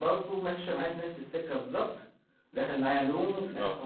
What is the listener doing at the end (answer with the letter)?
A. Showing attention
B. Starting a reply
A